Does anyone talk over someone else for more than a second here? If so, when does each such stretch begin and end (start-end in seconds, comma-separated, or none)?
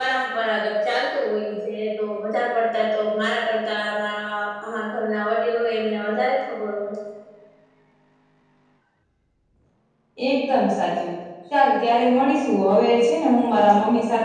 none